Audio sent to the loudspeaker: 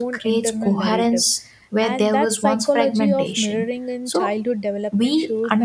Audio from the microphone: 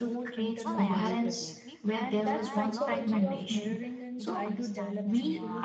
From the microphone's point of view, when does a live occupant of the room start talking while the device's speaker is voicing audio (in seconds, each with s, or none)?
0.6 s